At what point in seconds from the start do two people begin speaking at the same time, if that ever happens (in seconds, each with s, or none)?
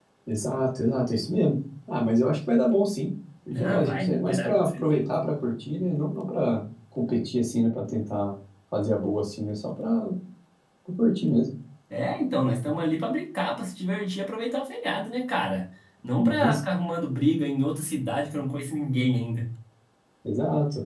3.6 s